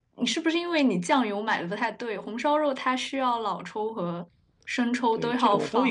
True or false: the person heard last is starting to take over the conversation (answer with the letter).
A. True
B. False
A